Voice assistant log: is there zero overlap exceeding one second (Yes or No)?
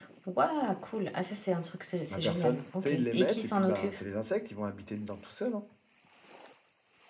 No